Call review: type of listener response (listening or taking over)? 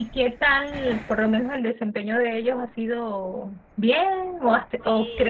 listening